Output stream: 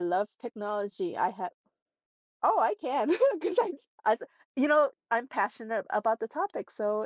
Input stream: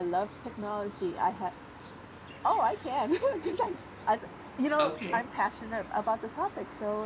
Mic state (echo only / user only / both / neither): both